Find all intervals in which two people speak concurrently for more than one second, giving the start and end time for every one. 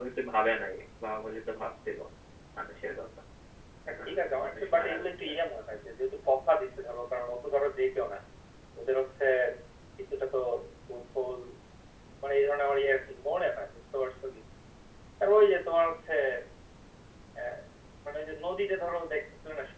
4.0-5.3

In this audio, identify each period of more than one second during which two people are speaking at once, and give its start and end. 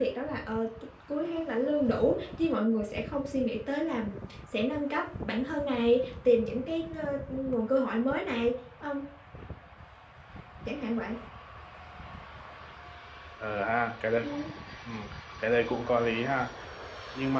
none

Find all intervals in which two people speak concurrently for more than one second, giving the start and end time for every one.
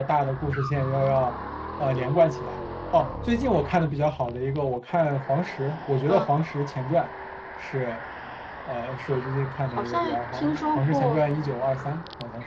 9.8-11.2

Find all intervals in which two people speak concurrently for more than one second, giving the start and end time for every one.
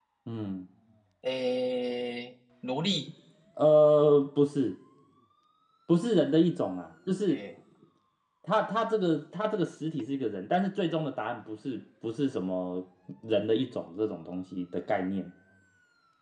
none

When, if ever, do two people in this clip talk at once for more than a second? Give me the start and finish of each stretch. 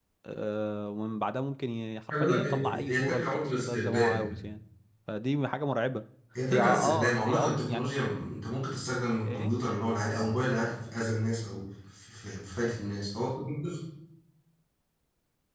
2.1-4.4, 6.5-7.9

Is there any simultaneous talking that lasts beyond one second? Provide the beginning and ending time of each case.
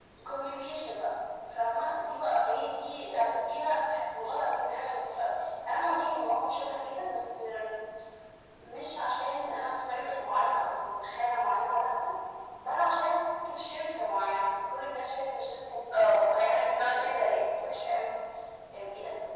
15.9-17.4

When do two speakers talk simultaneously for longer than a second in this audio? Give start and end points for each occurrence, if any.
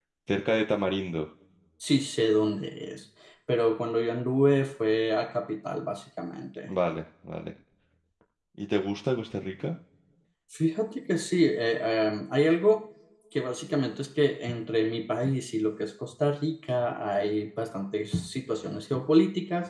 none

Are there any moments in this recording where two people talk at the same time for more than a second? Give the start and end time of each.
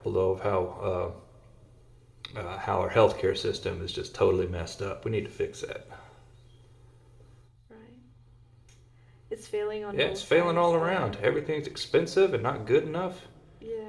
9.9-11.2

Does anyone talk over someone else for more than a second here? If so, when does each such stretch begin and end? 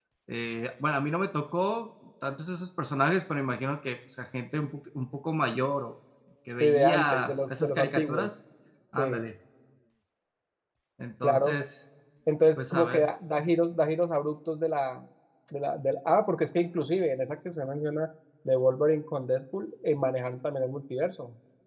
6.6-8.3

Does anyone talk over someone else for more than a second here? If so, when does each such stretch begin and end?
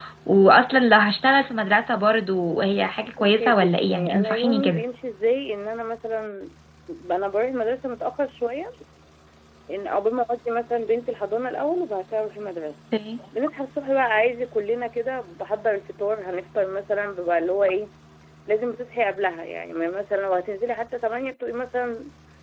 3.4-4.8

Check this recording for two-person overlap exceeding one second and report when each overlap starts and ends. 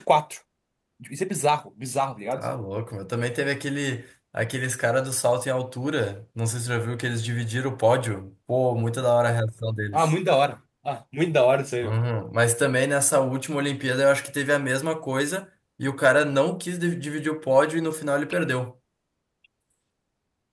none

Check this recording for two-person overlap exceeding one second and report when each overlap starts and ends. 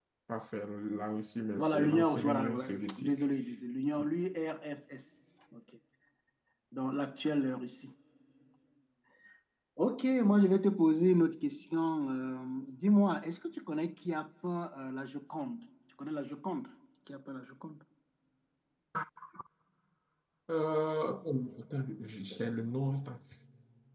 1.6-3.1

